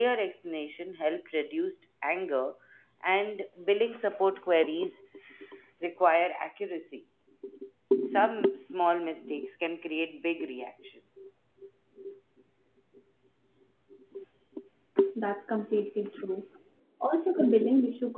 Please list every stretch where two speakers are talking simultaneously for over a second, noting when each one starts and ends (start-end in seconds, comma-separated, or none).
none